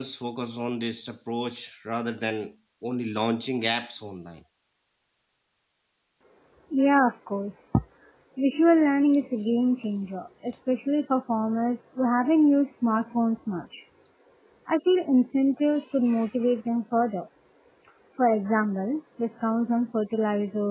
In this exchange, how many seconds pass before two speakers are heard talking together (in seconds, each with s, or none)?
none